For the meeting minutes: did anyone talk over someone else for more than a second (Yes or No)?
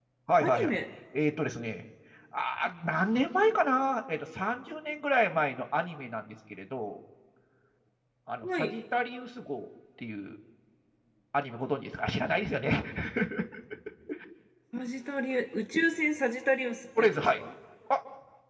No